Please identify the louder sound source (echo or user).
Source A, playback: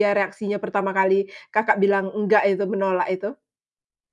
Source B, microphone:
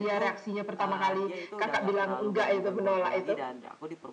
echo